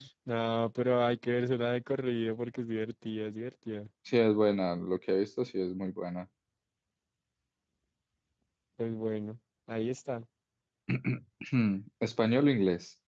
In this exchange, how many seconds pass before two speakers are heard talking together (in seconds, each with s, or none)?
none